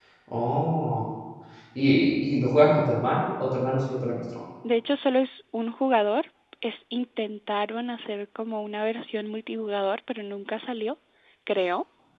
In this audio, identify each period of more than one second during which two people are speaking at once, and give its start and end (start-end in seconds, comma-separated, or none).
none